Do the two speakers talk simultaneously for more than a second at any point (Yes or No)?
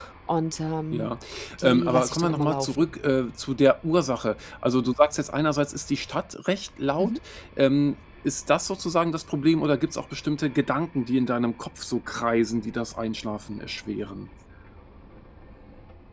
Yes